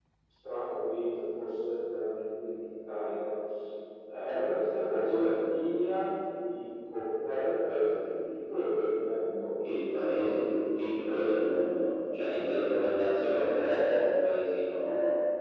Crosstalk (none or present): none